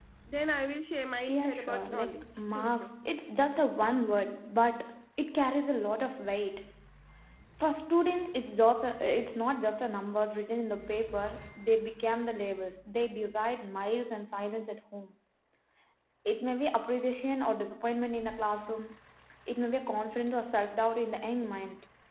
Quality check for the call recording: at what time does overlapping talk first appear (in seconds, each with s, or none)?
1.3 s